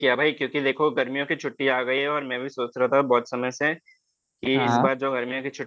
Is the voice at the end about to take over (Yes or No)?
No